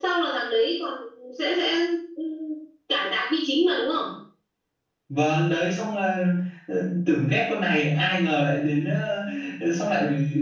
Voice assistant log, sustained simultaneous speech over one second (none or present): none